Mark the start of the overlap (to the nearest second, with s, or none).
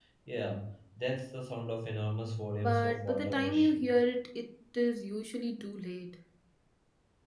3 s